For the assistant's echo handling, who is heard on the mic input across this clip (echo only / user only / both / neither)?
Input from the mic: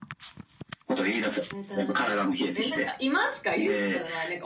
both